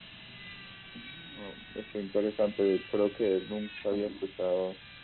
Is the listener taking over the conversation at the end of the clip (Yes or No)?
No